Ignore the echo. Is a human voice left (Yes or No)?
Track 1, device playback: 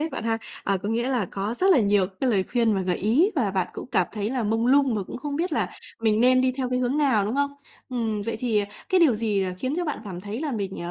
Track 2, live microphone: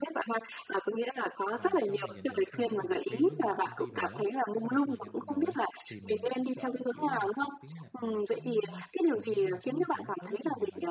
Yes